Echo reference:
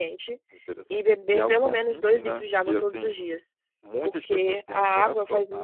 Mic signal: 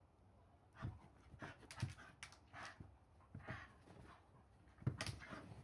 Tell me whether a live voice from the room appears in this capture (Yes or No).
No